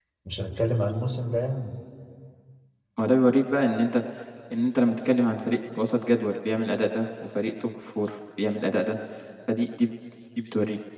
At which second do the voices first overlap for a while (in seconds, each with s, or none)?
none